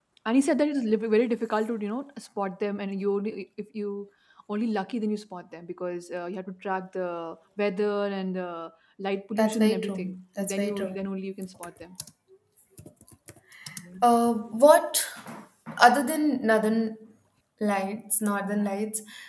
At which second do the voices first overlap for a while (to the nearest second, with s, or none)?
9 s